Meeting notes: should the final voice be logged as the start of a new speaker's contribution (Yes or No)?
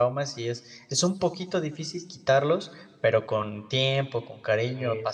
No